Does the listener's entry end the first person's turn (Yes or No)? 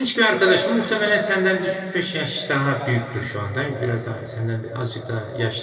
No